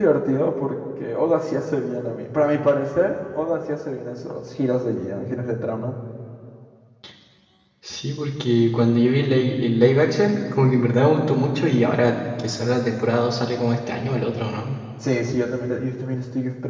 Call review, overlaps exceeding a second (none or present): none